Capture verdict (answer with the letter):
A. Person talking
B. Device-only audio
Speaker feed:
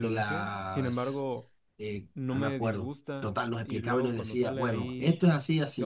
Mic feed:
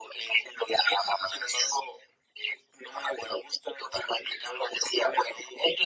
B